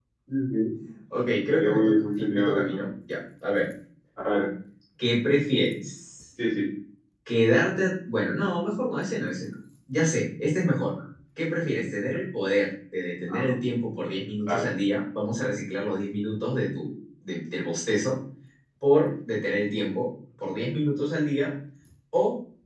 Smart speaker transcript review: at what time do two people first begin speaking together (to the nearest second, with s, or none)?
1 s